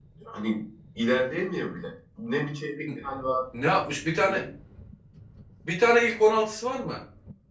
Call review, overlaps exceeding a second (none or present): none